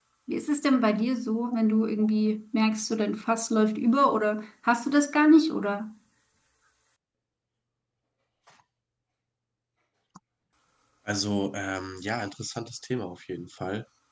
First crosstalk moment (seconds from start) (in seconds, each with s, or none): none